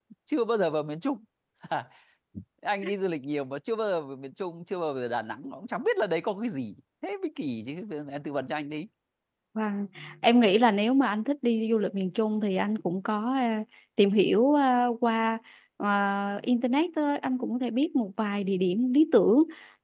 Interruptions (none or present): none